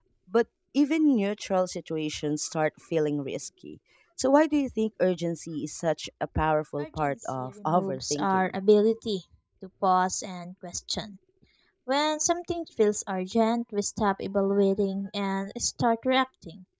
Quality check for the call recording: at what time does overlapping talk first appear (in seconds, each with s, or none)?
6.8 s